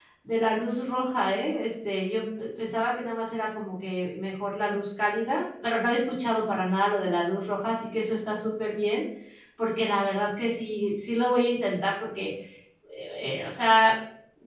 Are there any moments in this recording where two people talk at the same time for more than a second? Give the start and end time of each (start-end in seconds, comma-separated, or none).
none